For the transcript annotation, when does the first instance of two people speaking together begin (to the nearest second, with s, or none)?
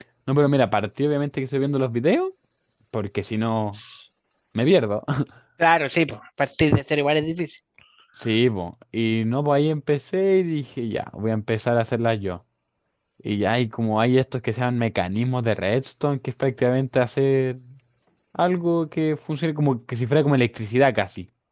none